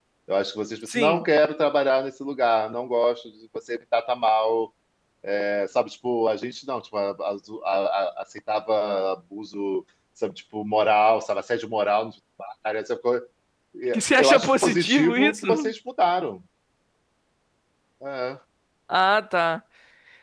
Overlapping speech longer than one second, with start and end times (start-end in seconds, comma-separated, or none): 13.9-15.7